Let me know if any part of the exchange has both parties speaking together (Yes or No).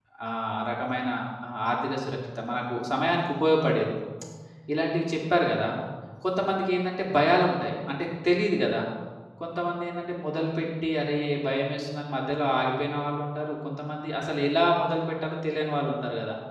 No